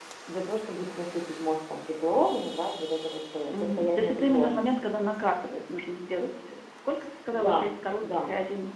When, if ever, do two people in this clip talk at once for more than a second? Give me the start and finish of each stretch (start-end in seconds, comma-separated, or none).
3.4-5.0